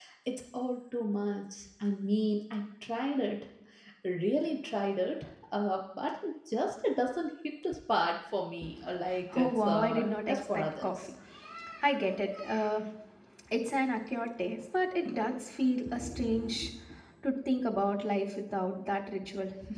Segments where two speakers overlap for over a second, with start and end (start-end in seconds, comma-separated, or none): 9.4-10.9